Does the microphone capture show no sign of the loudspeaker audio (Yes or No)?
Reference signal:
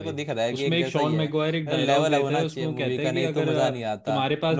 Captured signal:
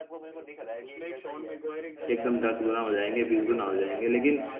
No